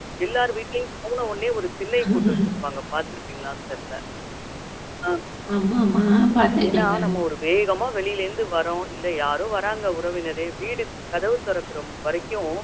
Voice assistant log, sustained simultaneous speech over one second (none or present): none